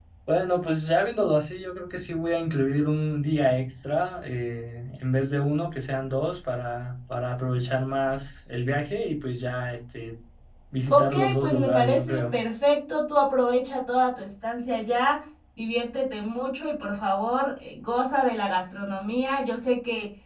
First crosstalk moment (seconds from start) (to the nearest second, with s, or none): 11 s